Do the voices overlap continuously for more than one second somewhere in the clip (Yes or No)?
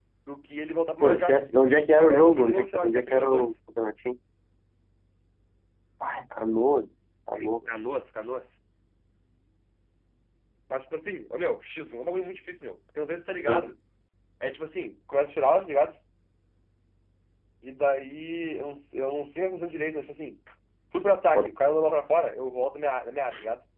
Yes